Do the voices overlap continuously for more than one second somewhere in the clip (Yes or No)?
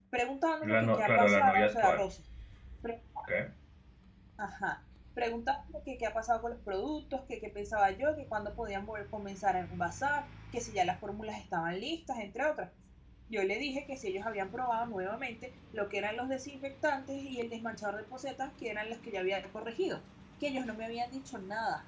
Yes